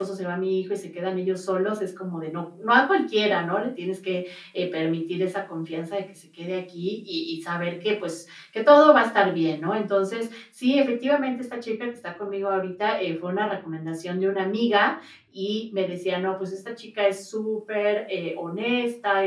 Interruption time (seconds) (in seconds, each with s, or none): none